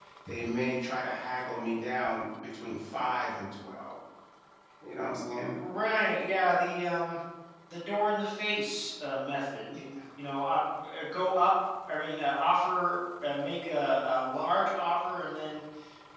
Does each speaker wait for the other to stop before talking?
Yes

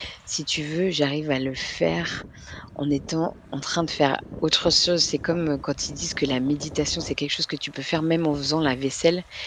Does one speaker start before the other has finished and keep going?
No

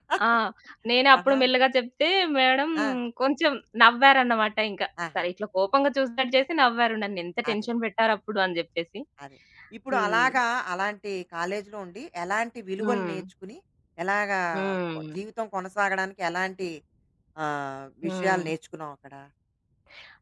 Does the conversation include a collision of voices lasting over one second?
No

